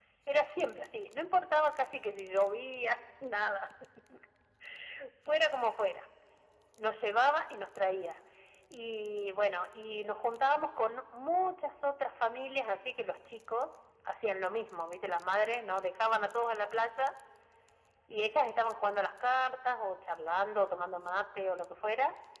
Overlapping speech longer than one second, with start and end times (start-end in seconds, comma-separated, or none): none